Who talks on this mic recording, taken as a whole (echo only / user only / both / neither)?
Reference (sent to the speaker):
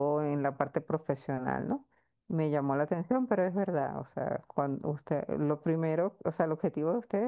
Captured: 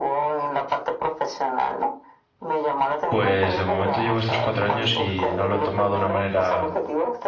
both